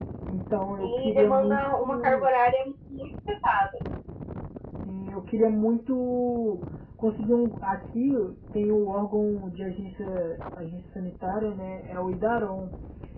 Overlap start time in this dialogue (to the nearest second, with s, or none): 1 s